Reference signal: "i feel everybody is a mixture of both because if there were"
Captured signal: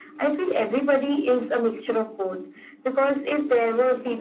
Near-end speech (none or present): present